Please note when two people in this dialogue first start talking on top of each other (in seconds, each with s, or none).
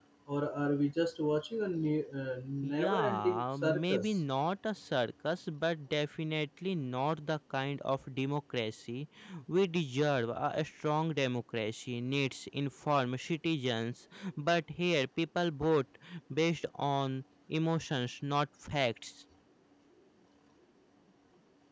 2.6 s